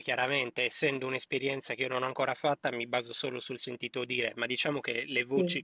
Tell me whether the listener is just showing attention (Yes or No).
Yes